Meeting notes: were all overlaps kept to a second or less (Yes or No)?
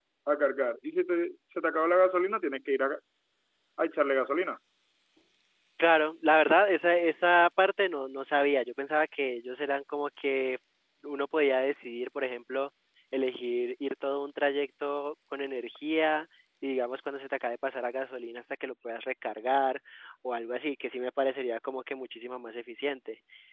Yes